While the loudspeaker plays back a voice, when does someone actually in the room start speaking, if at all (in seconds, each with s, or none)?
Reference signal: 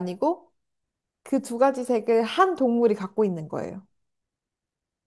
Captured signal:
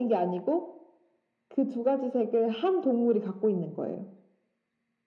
none